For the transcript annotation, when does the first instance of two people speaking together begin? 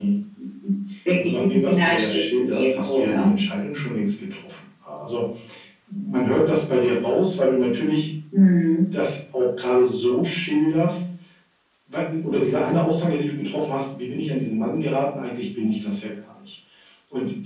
1.2 s

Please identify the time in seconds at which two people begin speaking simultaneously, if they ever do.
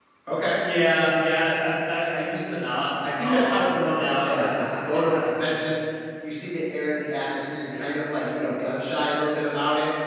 3.0 s

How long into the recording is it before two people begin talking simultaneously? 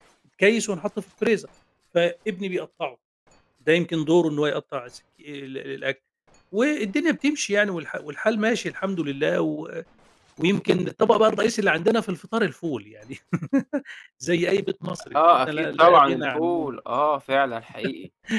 15.1 s

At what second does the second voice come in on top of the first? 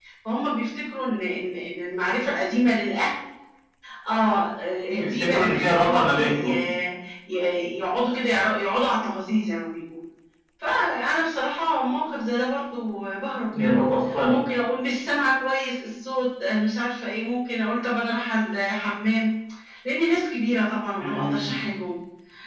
5.0 s

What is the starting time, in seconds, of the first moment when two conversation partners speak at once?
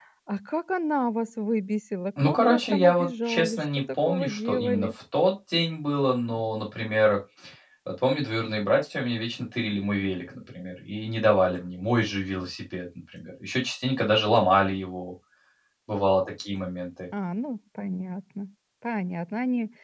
2.2 s

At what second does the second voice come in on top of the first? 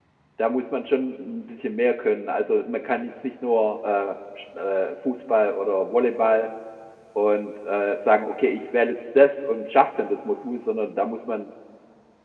none

